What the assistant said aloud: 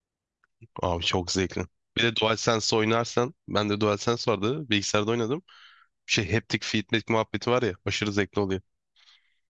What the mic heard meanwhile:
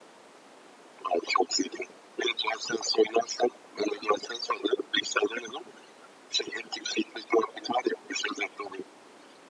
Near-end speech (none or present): none